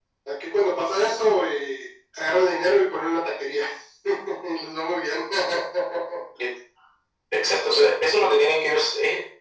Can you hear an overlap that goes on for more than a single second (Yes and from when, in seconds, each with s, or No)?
No